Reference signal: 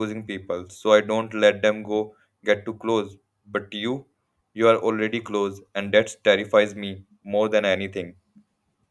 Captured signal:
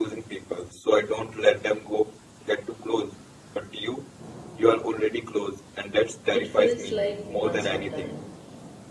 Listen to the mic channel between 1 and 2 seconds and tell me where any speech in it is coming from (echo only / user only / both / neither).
echo only